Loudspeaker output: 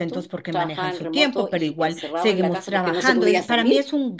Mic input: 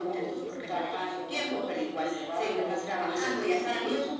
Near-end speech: present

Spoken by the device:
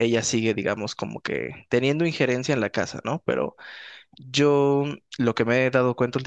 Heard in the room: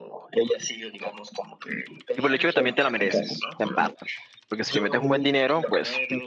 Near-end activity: present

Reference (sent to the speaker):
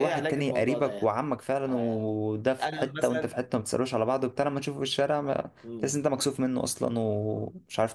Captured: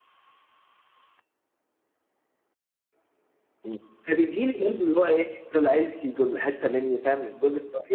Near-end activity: present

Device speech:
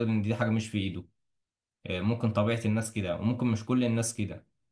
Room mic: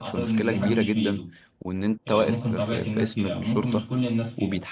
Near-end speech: present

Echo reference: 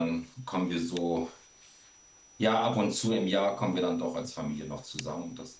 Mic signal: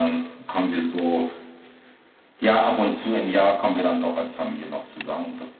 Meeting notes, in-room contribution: none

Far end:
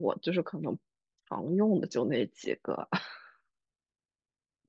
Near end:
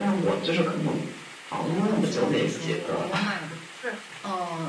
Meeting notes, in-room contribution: present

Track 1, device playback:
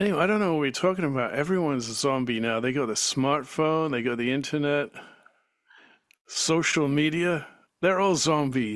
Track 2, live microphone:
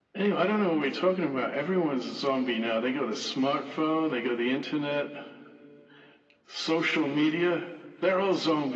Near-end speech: none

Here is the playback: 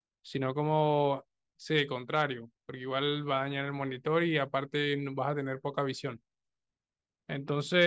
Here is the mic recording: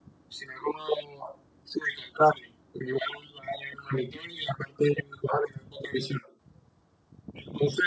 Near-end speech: none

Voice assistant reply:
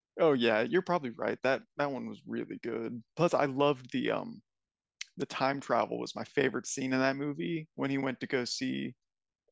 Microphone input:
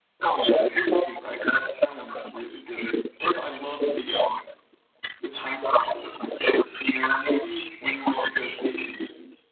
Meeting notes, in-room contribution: none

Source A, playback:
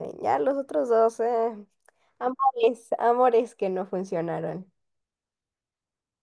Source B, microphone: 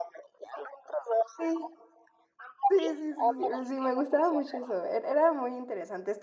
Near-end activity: present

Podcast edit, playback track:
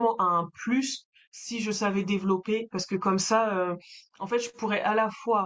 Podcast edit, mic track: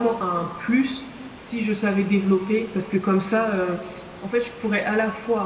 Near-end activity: none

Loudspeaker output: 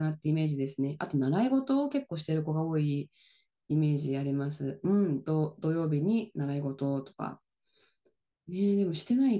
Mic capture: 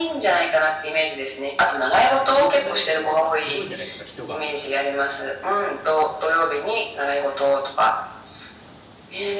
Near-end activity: present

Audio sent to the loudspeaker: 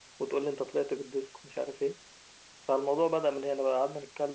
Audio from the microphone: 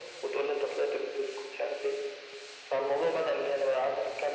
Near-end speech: none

